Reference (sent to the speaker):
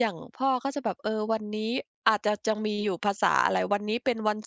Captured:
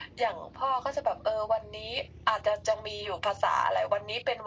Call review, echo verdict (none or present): present